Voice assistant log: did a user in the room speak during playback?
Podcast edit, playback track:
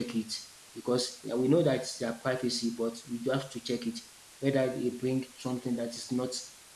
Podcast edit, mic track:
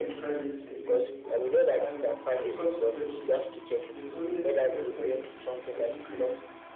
Yes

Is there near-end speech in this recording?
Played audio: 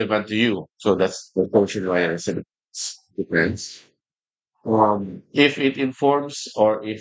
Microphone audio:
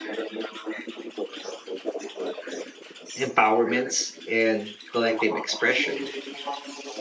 Yes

